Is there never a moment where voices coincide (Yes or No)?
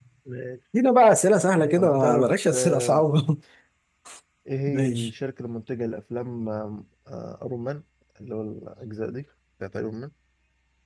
No